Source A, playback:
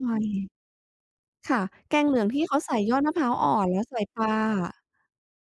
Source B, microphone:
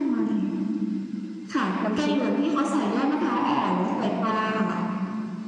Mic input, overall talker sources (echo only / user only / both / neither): both